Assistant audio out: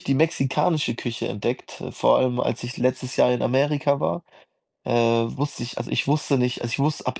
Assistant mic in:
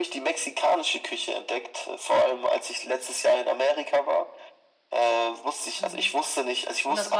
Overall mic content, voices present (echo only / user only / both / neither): both